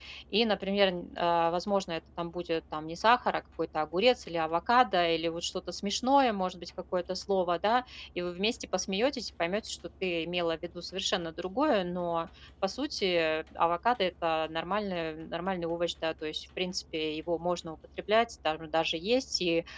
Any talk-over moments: No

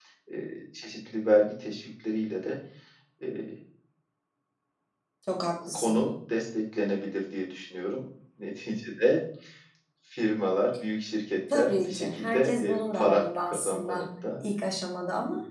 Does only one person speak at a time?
No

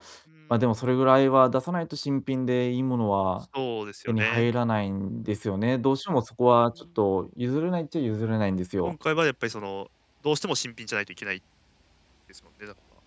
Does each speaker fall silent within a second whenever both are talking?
Yes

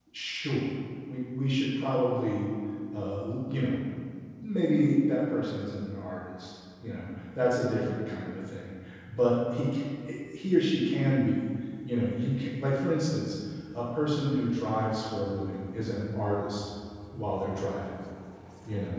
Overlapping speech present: No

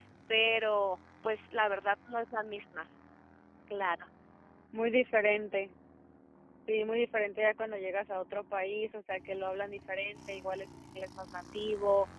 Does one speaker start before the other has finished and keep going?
No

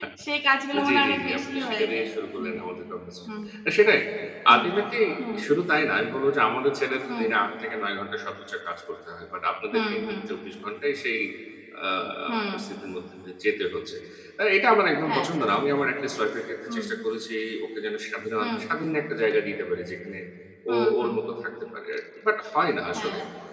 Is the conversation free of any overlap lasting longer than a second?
No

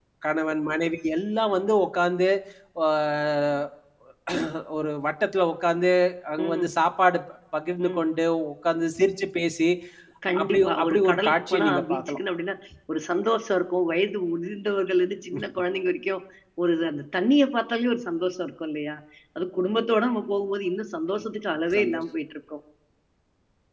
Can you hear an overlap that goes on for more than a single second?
Yes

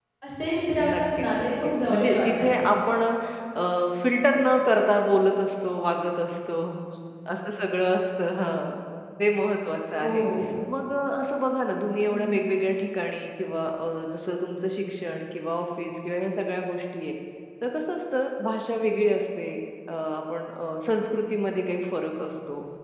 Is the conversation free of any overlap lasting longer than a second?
No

